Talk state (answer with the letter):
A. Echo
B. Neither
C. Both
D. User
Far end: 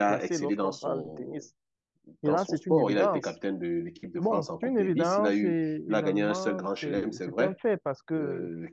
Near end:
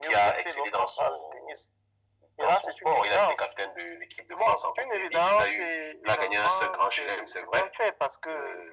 A